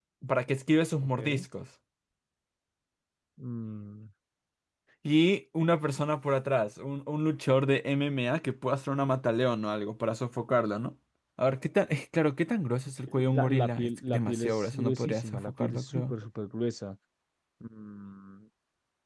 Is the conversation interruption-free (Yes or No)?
No